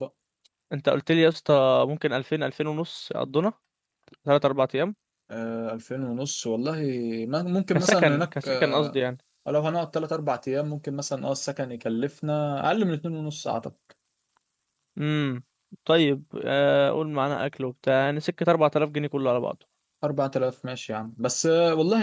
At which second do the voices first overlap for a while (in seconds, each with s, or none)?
7.7 s